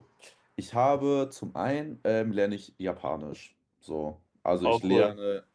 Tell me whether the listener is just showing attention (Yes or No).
Yes